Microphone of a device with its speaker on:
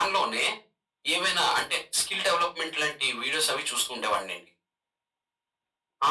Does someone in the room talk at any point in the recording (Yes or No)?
No